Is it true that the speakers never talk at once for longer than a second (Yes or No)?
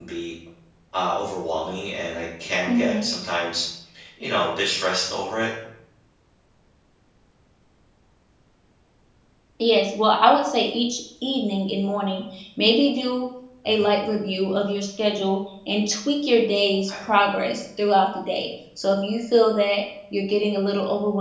Yes